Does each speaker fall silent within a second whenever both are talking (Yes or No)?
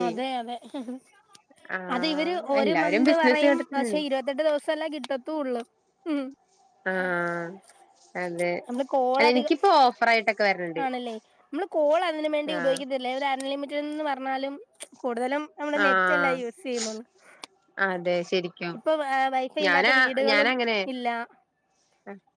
No